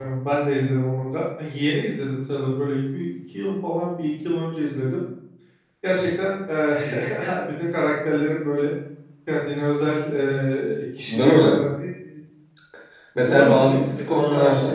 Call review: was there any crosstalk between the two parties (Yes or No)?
Yes